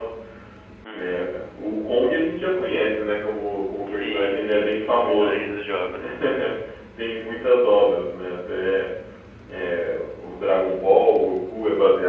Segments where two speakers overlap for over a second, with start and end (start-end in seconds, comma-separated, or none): 3.8-5.5